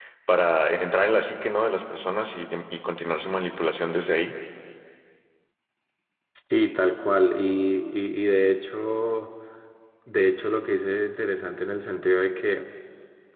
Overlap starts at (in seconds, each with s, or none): none